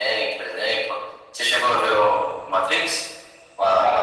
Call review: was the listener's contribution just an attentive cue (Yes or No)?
No